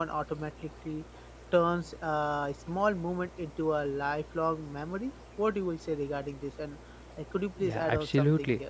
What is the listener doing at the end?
taking over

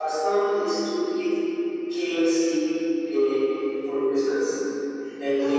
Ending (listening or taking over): listening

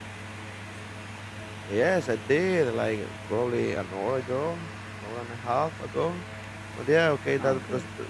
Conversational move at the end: listening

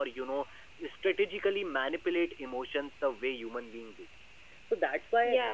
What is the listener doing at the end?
listening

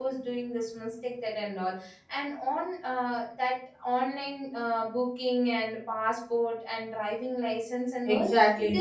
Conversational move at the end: taking over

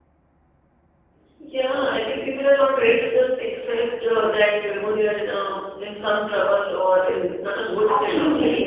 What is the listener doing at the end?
taking over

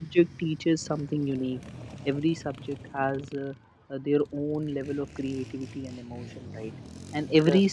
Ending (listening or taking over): listening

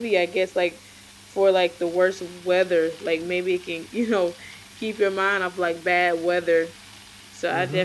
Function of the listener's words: taking over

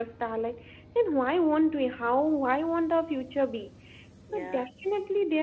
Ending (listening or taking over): listening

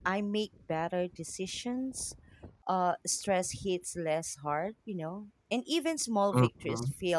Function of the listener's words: listening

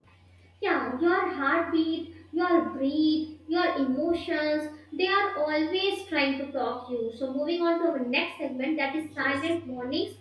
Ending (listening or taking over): listening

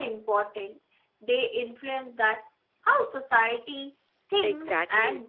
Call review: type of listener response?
taking over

